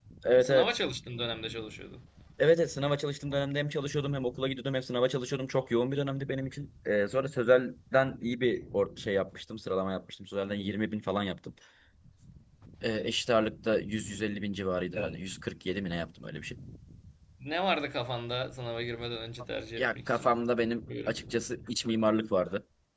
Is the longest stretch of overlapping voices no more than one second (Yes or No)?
Yes